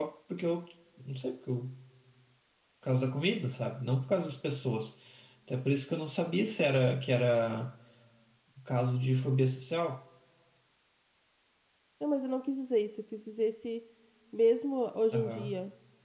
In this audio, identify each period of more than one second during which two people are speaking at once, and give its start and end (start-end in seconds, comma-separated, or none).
none